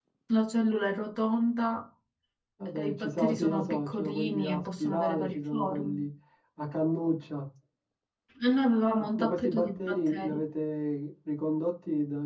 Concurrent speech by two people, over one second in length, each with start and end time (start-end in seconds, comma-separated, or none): 2.8-6.0, 9.2-10.4